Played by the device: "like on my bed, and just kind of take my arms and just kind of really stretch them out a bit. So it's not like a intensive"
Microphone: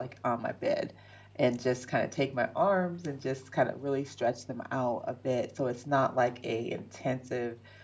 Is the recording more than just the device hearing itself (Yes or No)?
No